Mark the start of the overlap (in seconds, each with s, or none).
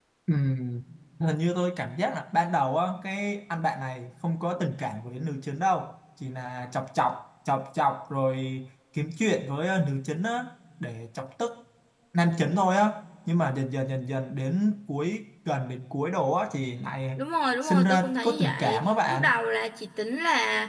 17.6 s